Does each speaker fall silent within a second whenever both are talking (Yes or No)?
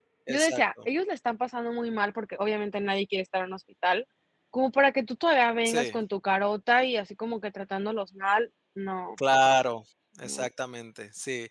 Yes